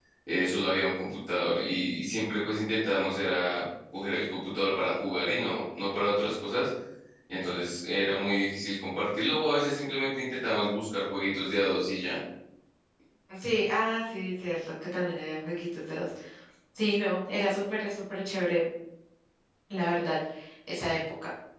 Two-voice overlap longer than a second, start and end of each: none

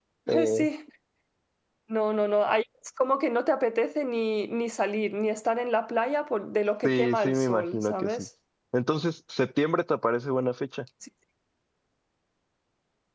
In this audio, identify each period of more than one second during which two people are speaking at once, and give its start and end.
6.8-8.3

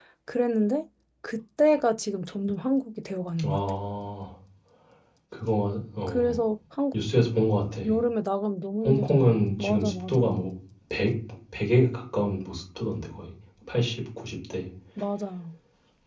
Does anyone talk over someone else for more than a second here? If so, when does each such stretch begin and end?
8.8-10.2

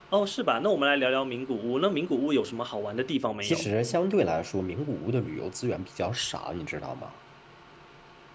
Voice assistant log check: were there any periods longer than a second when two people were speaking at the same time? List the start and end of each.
none

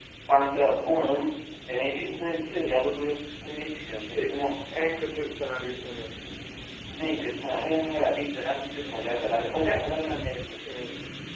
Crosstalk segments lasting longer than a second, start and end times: none

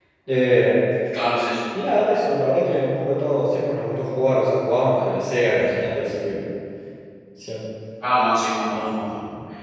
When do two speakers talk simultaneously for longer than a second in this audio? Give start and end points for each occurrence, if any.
none

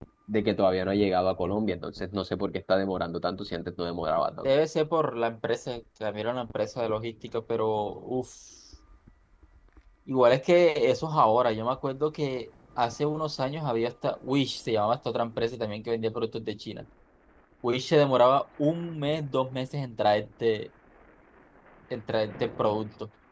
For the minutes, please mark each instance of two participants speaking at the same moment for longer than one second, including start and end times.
none

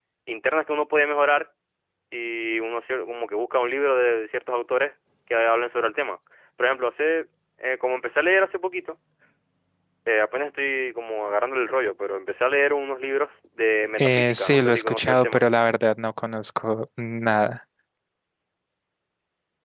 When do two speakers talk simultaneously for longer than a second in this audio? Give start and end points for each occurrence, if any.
14.0-15.4

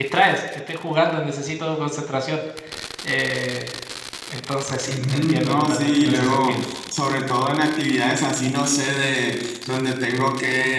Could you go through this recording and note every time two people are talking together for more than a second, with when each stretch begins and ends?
4.9-6.7

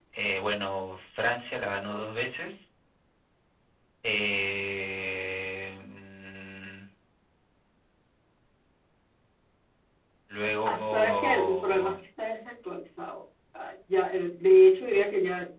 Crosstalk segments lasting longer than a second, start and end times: 10.7-11.9

